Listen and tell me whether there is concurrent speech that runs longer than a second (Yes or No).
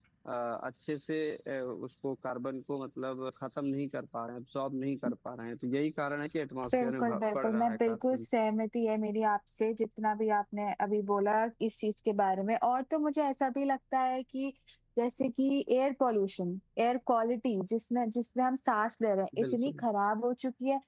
Yes